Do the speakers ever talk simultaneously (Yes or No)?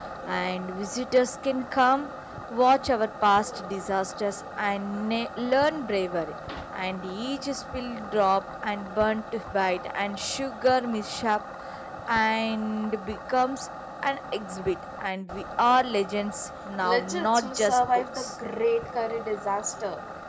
Yes